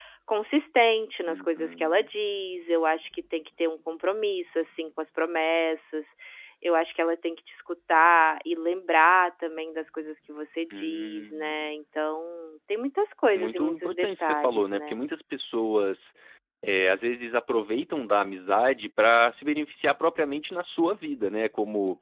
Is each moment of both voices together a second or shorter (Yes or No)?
No